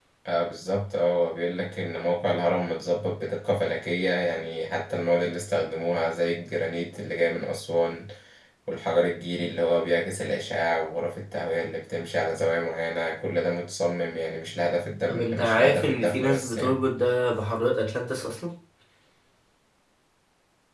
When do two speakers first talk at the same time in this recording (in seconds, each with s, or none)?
15.1 s